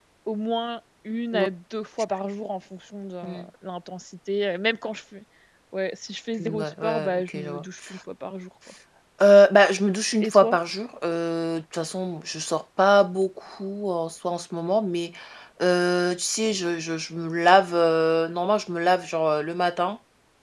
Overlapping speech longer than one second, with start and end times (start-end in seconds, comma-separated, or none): 6.4-7.6